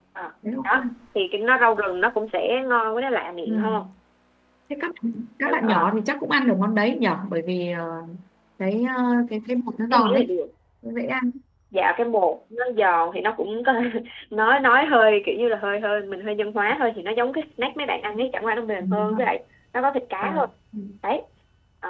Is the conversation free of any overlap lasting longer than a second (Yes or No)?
Yes